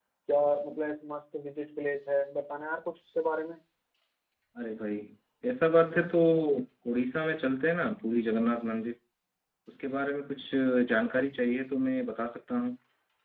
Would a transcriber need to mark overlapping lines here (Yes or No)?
No